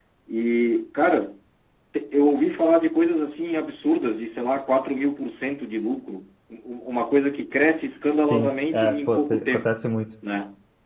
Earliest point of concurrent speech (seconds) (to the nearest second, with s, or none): 8 s